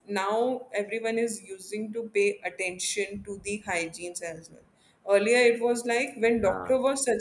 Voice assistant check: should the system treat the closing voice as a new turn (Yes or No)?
No